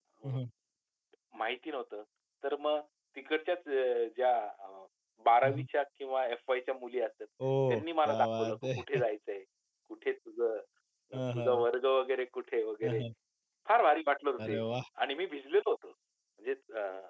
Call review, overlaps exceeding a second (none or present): present